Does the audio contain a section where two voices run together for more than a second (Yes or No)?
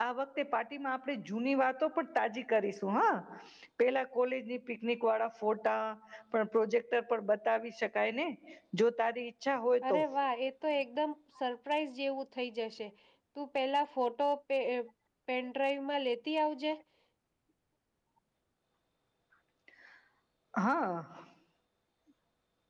No